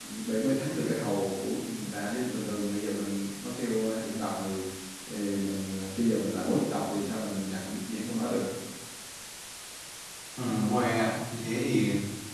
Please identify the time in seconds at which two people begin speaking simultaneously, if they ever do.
none

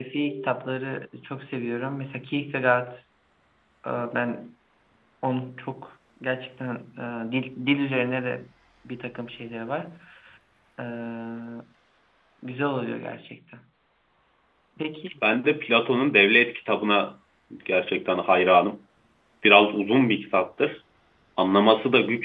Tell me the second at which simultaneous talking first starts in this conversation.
none

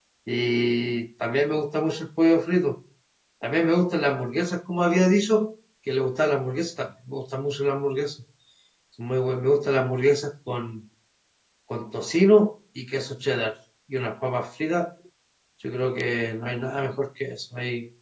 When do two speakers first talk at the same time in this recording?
none

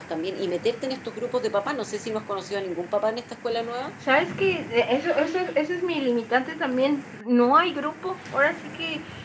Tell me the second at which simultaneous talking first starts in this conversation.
none

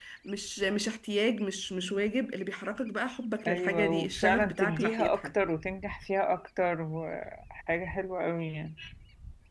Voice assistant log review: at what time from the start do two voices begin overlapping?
3.5 s

